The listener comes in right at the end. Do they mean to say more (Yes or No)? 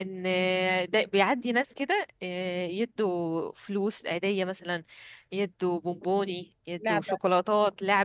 No